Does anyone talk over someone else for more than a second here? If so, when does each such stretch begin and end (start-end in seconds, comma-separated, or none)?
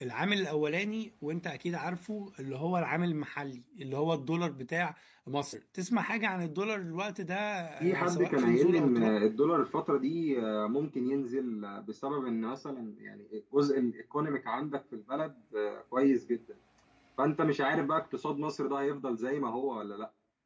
7.8-9.2